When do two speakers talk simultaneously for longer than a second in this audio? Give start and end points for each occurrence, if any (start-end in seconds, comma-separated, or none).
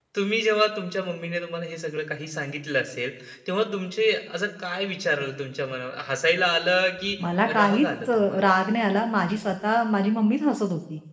7.2-8.6